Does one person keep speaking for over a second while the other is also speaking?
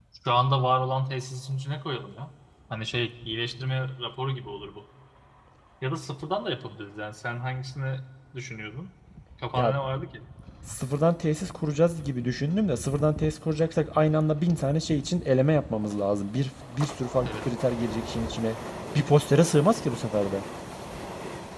No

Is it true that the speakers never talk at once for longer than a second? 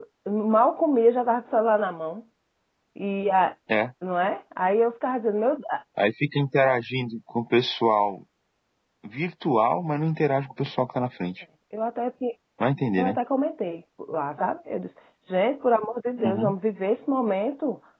Yes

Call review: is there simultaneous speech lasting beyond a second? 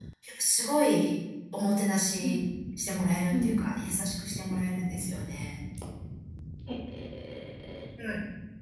No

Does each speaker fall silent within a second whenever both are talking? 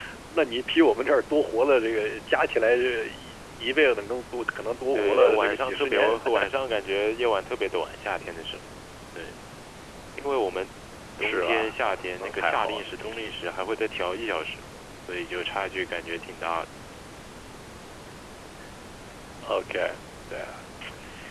No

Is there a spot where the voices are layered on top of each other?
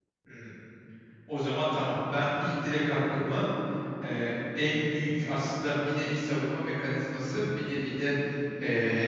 No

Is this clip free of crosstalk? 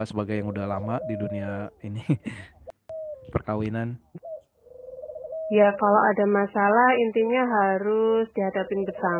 Yes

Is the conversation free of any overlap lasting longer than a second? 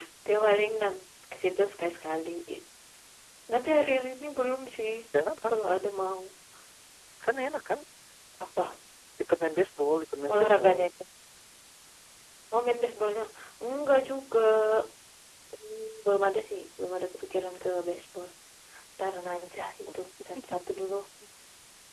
Yes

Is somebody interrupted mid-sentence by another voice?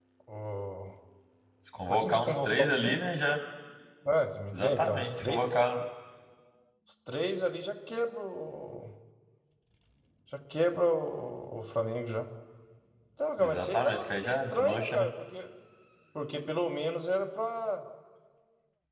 Yes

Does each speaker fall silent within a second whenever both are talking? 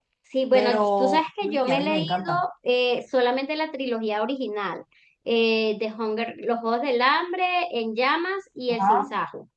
No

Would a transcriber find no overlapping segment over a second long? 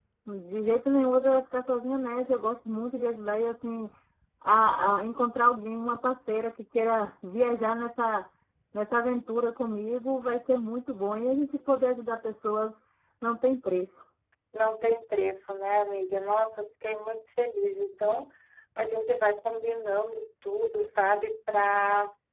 Yes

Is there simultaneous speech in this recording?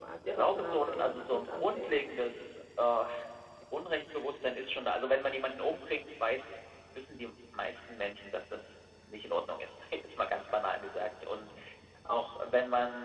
Yes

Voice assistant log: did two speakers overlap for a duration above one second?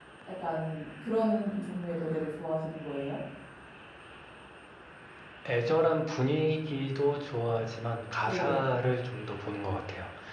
No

